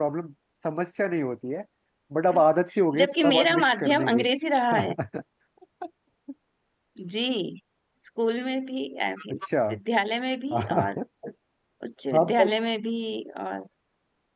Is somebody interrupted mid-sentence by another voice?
Yes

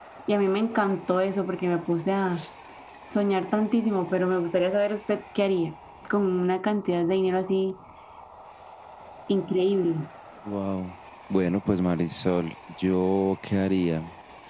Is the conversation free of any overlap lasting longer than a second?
Yes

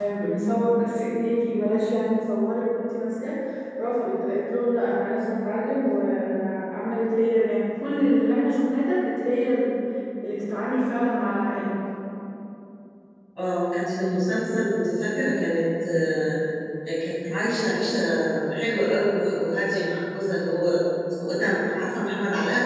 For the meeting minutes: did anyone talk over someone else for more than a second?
No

